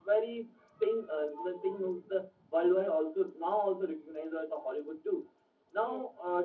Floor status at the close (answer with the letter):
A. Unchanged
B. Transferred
A